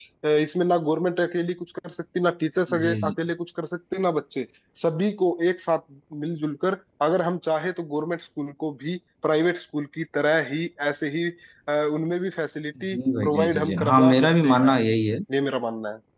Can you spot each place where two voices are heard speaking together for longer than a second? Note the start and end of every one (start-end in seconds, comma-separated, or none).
12.9-14.7